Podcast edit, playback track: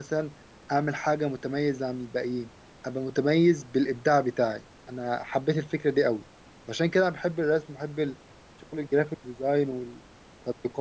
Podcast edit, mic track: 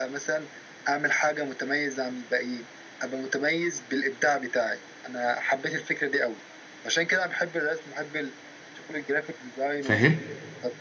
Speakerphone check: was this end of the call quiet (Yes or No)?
No